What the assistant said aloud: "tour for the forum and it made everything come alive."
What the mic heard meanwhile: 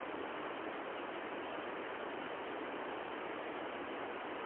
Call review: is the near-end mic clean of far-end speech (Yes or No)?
Yes